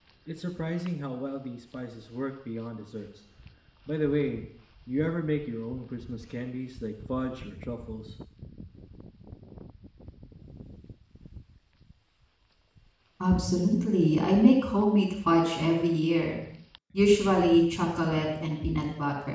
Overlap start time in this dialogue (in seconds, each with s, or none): none